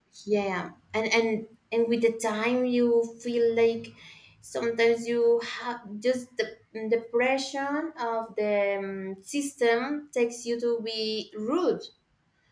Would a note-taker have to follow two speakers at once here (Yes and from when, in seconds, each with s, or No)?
No